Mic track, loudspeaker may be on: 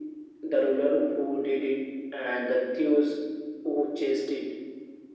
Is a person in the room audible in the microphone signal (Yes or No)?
No